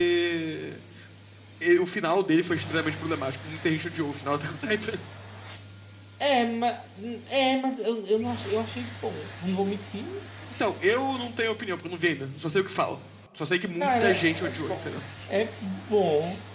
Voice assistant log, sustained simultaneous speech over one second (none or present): present